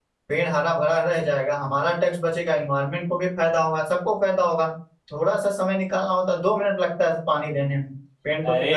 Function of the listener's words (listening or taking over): taking over